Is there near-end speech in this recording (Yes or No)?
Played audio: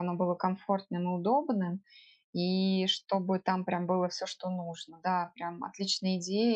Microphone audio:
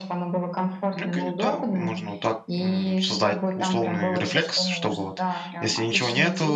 Yes